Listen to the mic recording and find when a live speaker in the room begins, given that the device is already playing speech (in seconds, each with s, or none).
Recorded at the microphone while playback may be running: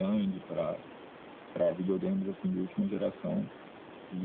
none